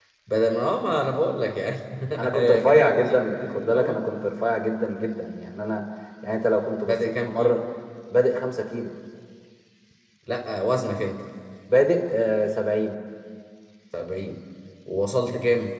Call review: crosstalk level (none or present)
present